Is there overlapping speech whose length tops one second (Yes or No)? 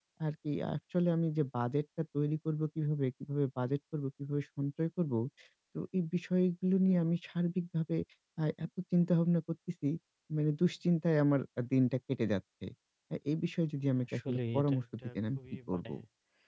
Yes